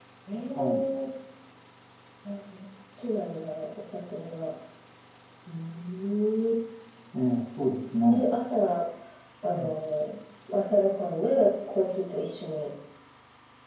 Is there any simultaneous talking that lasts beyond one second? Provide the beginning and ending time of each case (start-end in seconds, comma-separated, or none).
none